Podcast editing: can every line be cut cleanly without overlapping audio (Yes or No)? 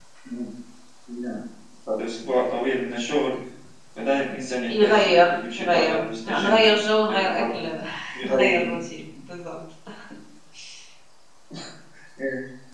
No